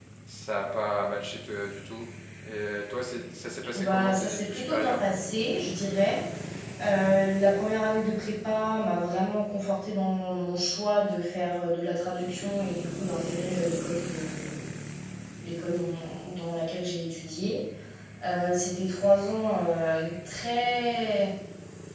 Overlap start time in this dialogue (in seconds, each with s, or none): 3.7 s